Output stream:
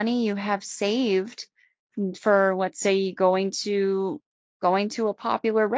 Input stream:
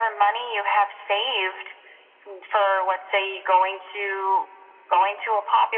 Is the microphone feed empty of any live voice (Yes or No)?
Yes